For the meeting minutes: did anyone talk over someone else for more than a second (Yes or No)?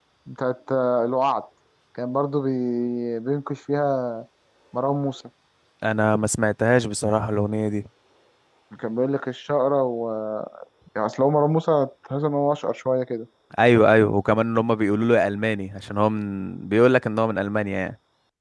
No